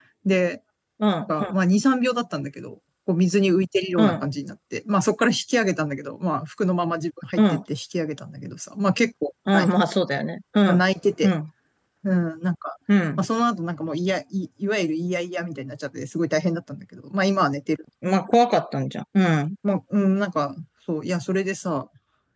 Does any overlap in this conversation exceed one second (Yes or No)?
No